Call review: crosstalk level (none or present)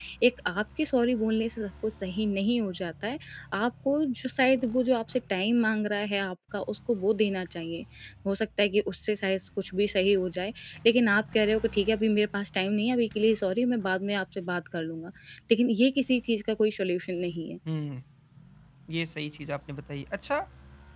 none